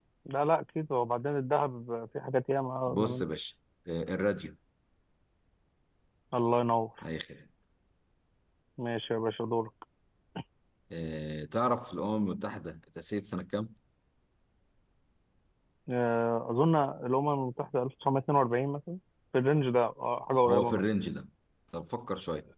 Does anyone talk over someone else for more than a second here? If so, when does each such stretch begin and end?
none

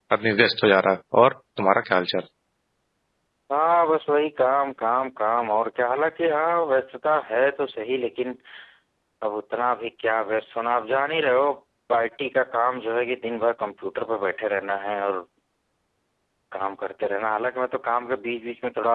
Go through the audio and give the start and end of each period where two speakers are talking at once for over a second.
none

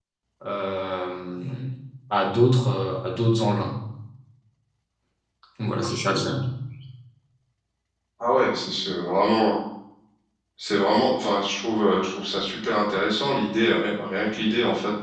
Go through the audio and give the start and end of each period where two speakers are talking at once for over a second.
none

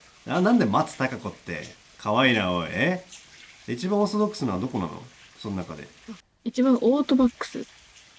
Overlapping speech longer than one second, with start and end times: none

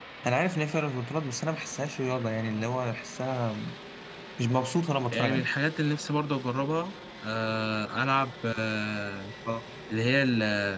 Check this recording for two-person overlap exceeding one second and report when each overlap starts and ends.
none

